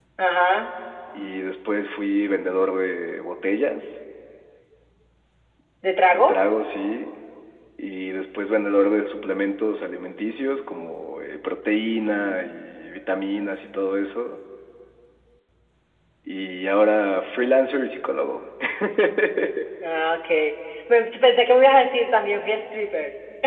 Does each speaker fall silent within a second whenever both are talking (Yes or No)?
Yes